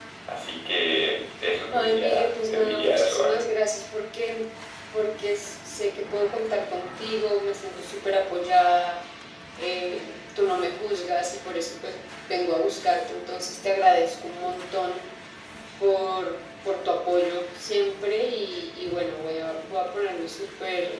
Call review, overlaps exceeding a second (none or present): present